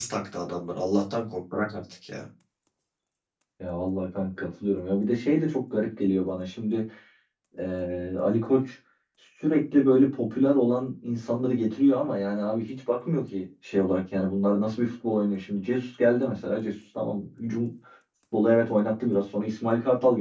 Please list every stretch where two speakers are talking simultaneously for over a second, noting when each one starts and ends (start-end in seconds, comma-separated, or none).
none